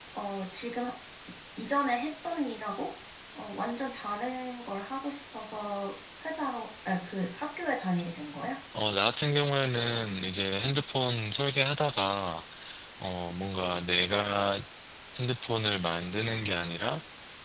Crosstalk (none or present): none